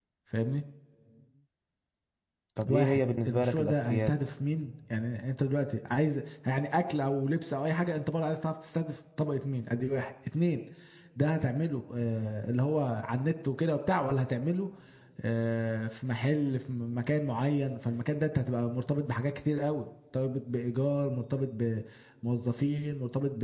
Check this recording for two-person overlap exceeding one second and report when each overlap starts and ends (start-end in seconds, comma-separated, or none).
2.7-4.1